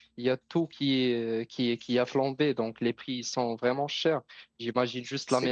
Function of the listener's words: listening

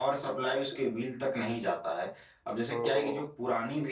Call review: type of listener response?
listening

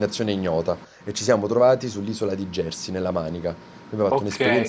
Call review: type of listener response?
taking over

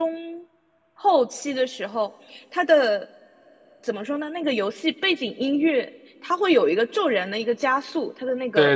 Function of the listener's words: taking over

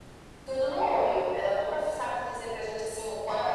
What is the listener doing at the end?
taking over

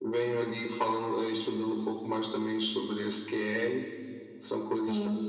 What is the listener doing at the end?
listening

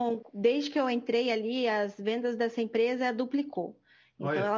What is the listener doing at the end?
listening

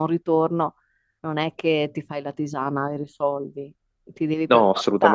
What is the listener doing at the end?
listening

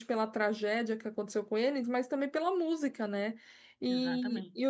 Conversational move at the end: listening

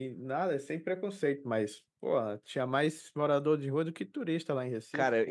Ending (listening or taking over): taking over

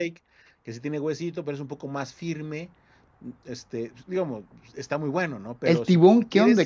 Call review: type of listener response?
taking over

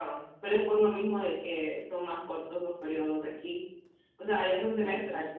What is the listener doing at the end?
listening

